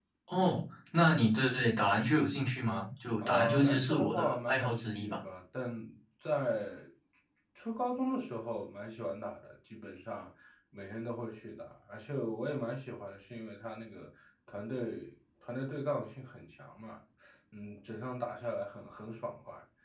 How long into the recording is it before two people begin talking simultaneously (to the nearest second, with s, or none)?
3 s